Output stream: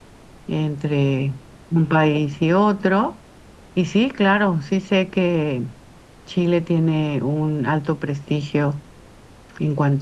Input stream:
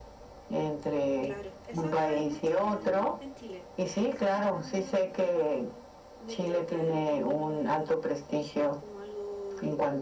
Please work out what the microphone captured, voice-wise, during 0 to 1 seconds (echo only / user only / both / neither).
echo only